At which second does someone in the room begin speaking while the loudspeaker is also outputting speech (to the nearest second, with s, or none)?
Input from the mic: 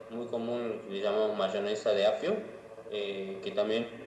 none